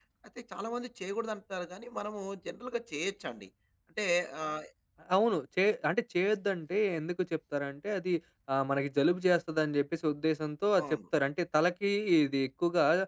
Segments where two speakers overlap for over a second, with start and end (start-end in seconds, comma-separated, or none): none